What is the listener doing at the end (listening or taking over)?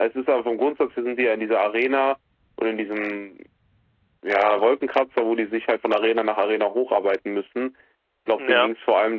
listening